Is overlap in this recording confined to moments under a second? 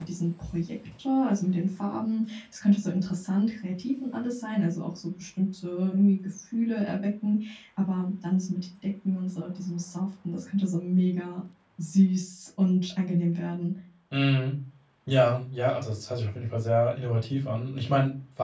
Yes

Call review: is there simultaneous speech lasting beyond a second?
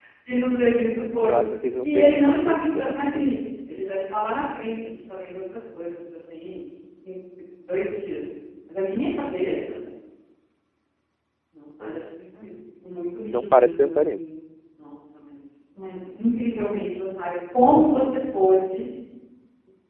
Yes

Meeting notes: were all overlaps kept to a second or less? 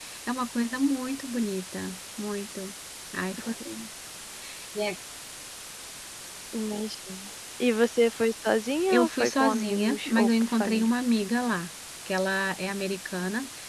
No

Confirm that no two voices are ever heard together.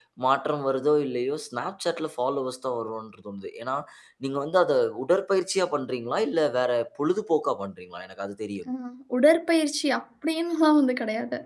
Yes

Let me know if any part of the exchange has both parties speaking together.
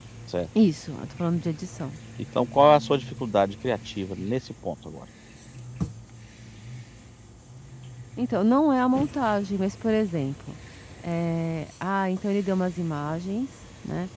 No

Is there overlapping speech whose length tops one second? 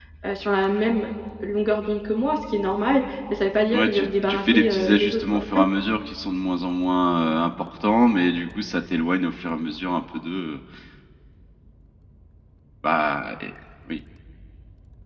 Yes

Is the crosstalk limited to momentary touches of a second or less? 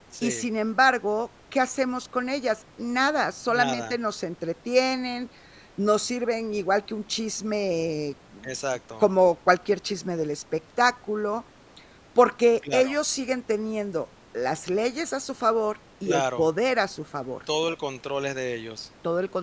Yes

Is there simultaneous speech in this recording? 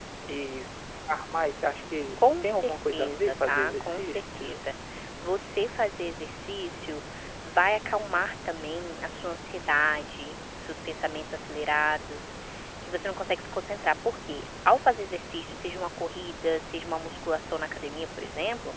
Yes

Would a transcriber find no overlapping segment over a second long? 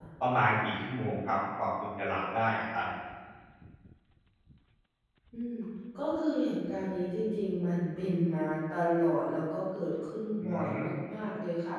Yes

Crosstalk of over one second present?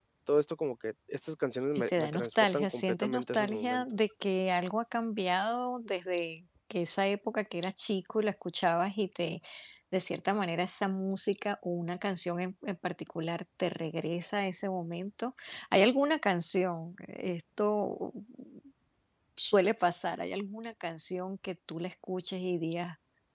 Yes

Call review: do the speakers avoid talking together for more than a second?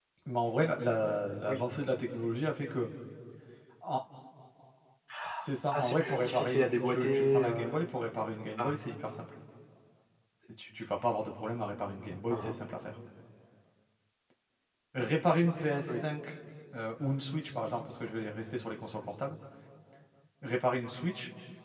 No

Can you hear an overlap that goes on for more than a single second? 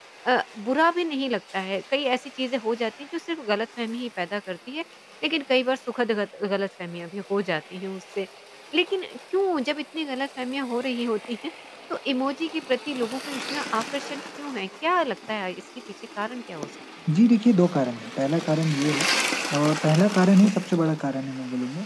No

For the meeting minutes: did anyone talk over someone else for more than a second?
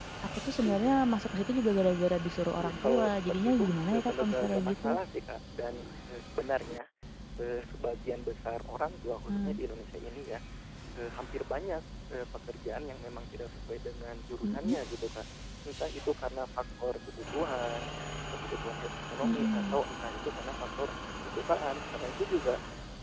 Yes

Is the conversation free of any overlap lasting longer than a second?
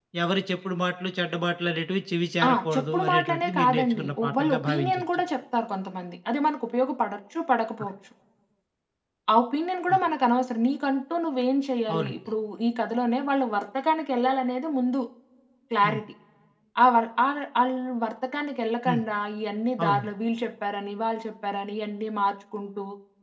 No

